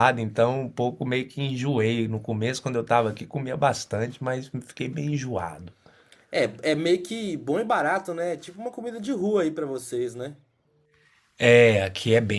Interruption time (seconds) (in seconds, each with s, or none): none